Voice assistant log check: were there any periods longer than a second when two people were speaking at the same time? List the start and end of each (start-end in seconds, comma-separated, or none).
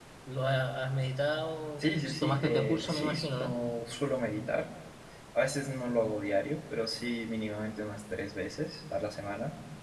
1.8-3.6